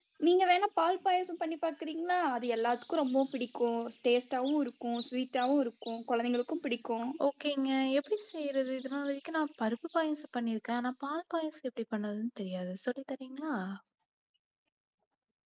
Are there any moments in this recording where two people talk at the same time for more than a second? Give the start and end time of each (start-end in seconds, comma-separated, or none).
none